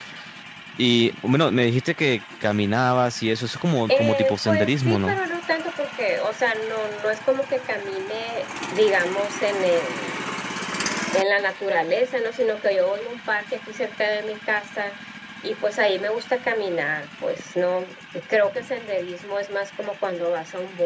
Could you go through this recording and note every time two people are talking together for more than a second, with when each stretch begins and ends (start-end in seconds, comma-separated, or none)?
3.9-5.2